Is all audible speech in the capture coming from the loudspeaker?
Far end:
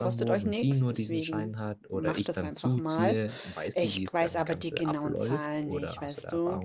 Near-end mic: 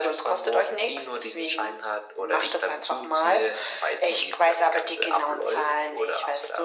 Yes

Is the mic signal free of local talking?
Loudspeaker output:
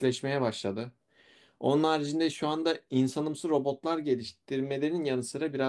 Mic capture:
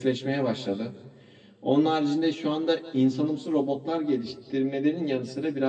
Yes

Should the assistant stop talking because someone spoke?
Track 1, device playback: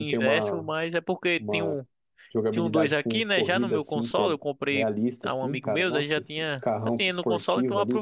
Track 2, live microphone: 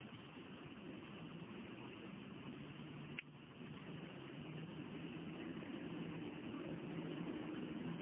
No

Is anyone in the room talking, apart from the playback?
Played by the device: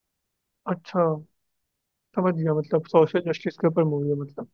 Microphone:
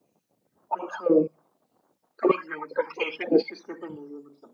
No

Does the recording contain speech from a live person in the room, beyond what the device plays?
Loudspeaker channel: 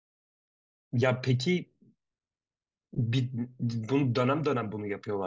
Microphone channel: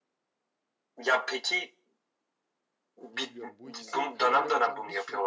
Yes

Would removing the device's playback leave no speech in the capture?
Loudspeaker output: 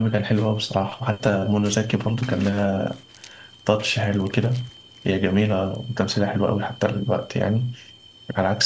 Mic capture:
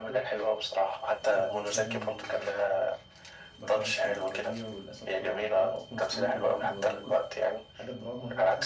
No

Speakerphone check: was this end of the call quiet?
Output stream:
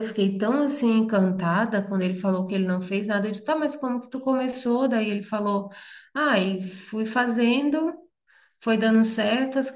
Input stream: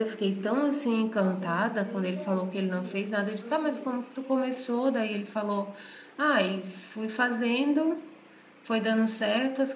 No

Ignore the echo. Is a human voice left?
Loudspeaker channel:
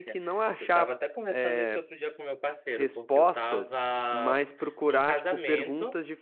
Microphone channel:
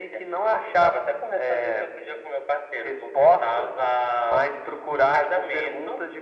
No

